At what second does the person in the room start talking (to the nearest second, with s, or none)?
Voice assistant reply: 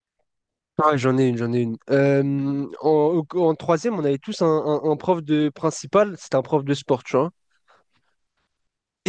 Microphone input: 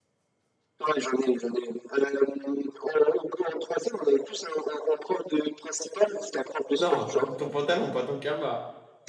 7 s